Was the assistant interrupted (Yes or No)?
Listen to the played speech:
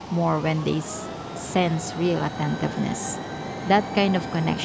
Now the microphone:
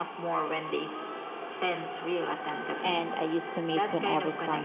Yes